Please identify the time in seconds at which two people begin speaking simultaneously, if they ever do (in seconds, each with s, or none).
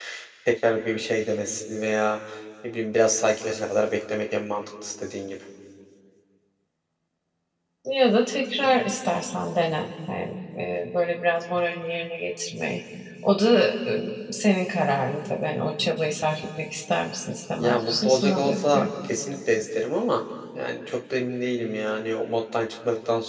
17.6 s